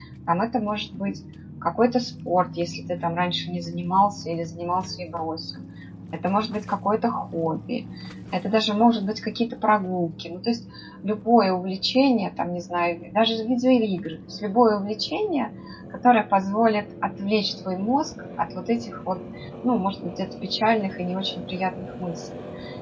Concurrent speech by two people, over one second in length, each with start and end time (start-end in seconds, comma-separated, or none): none